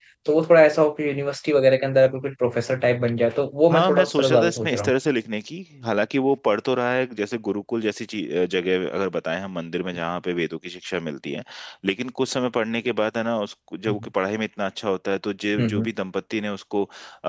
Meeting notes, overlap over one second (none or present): present